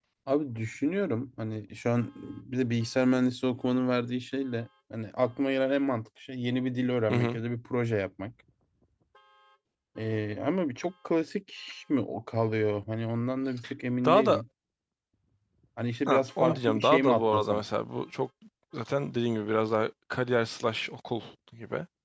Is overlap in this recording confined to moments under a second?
No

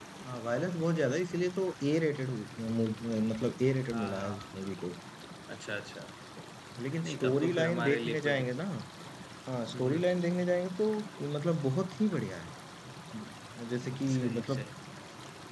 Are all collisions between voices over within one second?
No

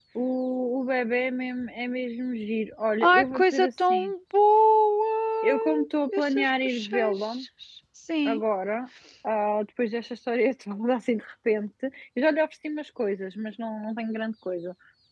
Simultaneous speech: Yes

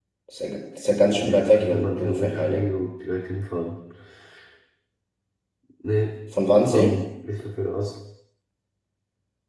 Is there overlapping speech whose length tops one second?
Yes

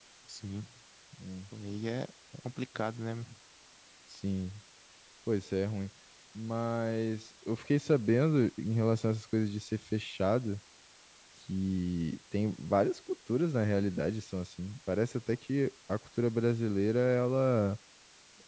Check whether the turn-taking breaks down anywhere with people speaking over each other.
No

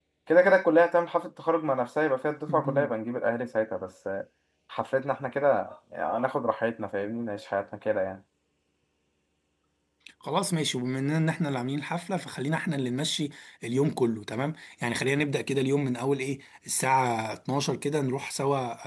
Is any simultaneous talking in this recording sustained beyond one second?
No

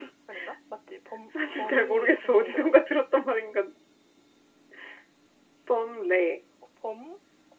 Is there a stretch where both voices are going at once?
Yes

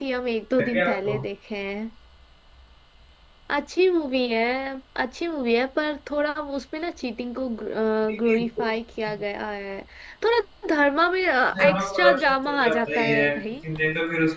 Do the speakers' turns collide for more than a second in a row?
Yes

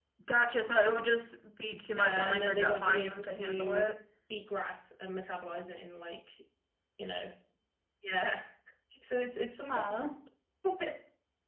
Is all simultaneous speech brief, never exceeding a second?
No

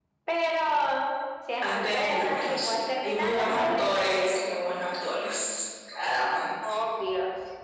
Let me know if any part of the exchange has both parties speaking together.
Yes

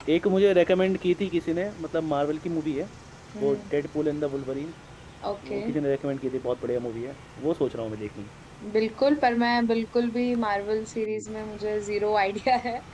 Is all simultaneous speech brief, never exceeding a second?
Yes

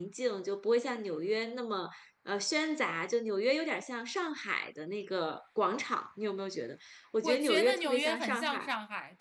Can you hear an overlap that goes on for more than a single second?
Yes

